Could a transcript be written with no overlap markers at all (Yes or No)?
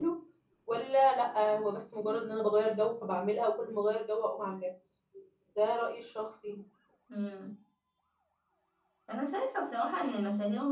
Yes